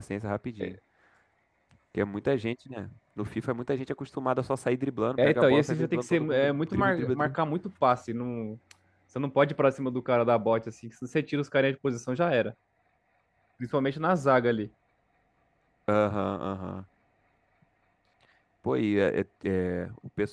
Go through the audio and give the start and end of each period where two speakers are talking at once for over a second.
5.2-7.3

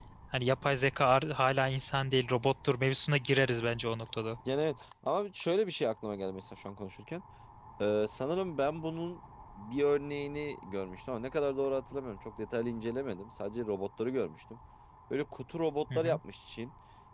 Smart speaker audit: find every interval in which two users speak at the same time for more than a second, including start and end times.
none

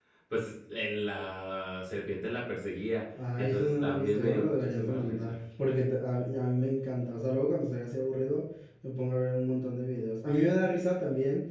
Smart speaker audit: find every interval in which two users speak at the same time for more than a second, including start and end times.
3.4-5.2

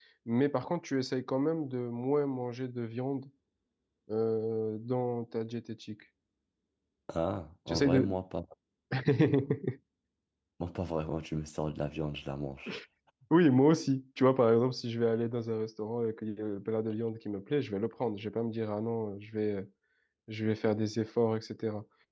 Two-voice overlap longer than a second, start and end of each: none

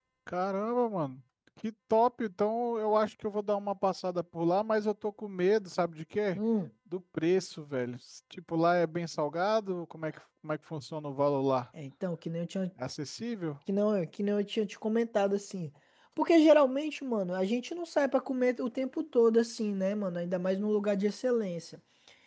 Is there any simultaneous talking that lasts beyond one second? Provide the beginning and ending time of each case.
none

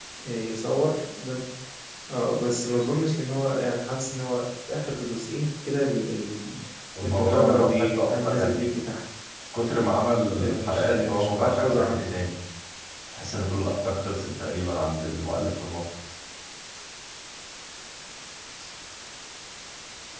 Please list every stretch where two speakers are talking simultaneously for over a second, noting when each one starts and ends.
7.0-8.6, 10.3-12.0

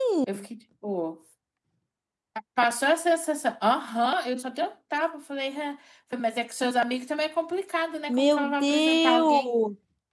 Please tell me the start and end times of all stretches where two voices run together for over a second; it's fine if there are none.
8.1-9.5

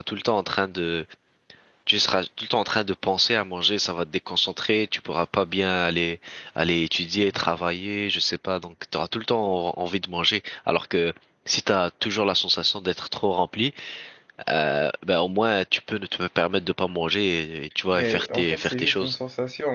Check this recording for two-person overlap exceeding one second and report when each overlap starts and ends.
17.9-19.1

